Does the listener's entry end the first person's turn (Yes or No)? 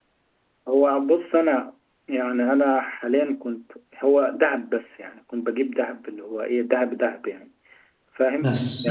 No